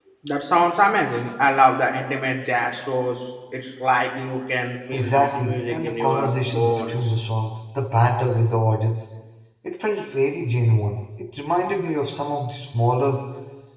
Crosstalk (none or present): present